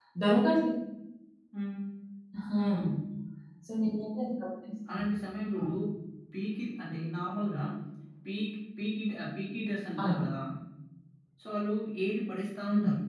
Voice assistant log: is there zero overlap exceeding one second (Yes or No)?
Yes